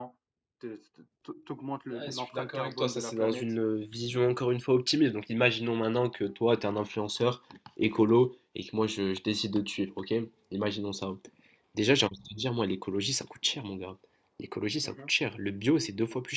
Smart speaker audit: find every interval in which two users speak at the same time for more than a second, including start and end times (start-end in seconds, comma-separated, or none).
1.9-3.5